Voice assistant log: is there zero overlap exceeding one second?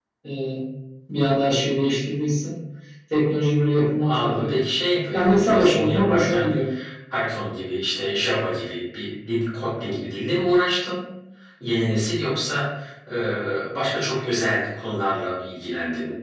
No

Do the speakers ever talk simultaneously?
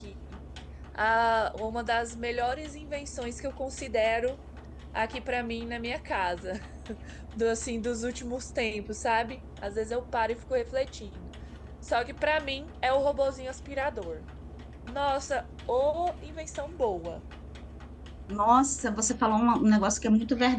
No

